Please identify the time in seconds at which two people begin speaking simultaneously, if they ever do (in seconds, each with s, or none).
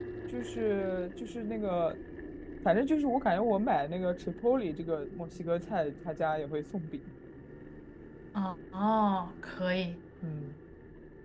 none